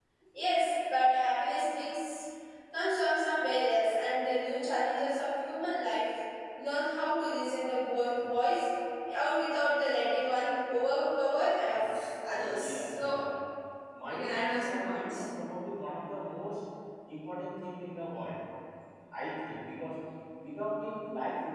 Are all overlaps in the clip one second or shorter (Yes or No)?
No